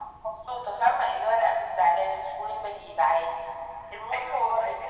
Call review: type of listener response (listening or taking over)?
taking over